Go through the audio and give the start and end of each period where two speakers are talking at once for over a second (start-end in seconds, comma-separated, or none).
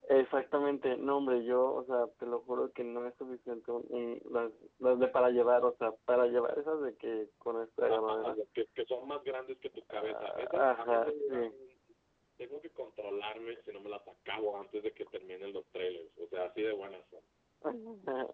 9.9-11.5